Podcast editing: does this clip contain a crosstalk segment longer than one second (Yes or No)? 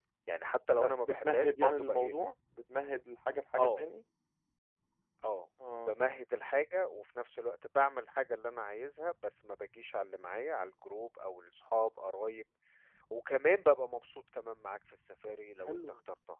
Yes